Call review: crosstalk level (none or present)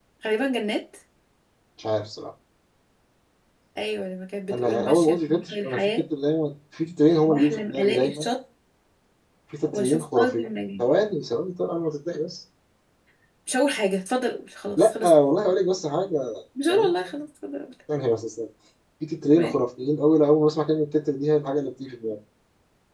present